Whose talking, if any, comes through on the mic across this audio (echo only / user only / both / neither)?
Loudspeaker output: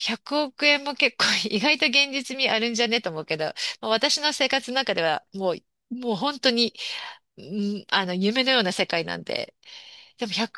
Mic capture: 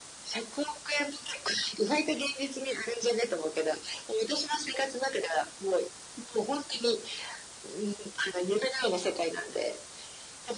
echo only